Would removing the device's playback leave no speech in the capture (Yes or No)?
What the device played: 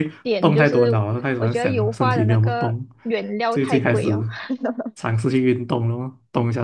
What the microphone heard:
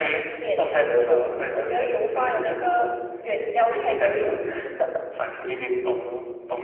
Yes